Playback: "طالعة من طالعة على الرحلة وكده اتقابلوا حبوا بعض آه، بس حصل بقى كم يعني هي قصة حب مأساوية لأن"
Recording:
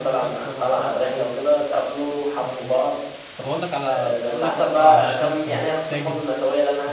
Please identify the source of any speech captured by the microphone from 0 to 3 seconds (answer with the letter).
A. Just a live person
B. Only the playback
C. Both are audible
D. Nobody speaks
C